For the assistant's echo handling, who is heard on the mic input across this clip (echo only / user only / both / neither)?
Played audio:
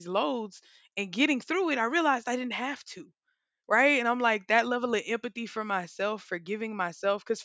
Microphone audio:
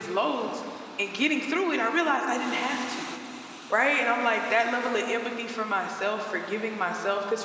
echo only